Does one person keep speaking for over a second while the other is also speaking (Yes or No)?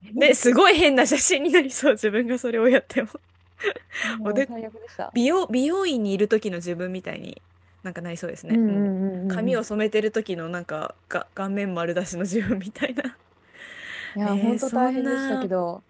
Yes